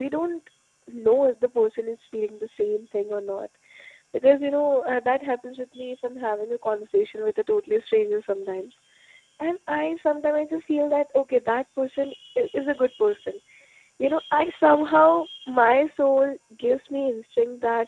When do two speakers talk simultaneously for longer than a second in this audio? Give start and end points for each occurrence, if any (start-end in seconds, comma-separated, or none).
none